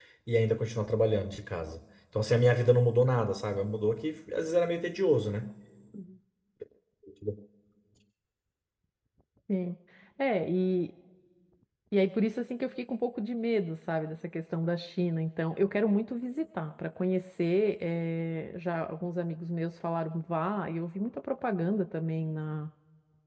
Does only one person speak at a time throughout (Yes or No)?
Yes